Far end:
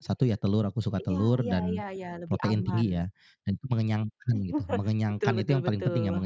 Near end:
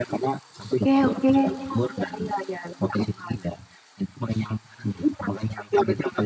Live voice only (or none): Oke oke.